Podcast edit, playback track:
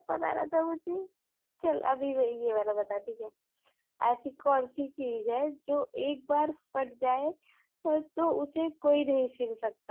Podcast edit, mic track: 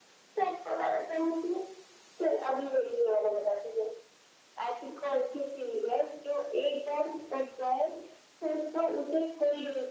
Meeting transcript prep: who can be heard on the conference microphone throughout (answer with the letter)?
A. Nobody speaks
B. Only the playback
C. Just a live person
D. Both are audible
B